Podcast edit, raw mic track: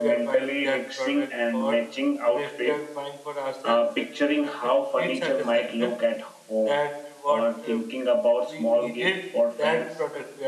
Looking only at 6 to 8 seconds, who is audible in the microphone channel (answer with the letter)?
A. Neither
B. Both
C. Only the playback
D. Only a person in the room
B